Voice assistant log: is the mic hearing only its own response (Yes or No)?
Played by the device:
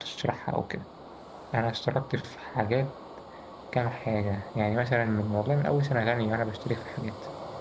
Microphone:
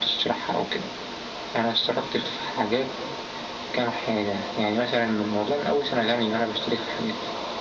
Yes